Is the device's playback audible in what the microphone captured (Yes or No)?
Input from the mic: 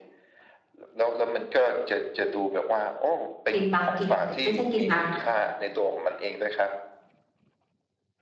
Yes